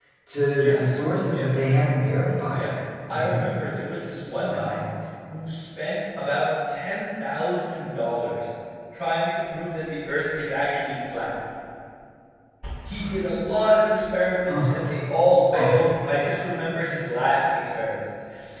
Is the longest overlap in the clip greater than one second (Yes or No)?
No